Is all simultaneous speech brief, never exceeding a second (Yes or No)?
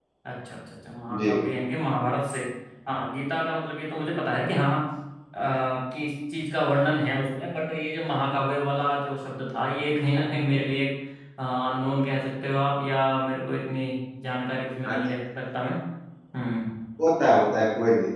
Yes